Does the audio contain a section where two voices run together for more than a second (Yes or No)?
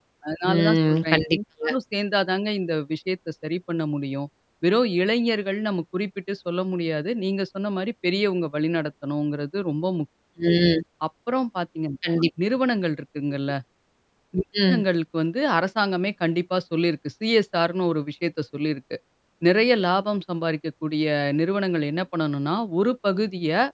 Yes